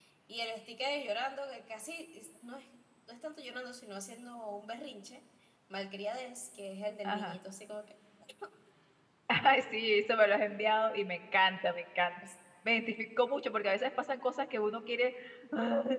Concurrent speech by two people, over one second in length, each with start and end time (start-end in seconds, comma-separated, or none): none